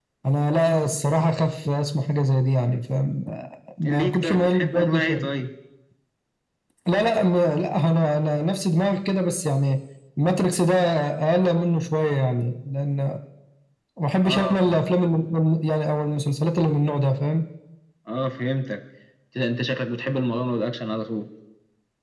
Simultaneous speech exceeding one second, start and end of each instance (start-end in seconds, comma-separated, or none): 3.9-5.3